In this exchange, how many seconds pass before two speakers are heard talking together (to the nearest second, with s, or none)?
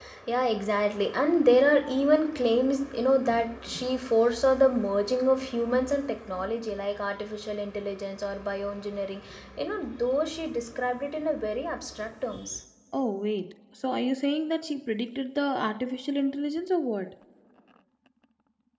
none